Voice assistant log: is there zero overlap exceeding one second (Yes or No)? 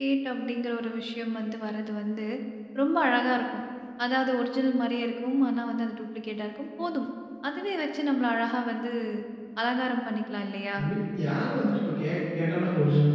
Yes